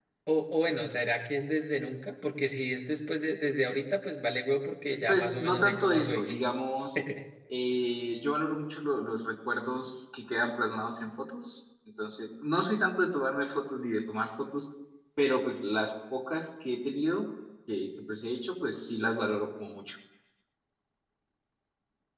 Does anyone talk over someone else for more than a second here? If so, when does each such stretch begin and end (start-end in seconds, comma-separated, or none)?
5.1-6.3